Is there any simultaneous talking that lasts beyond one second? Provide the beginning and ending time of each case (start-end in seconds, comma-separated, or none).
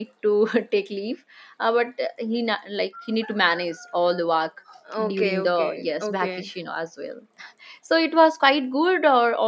5.1-6.5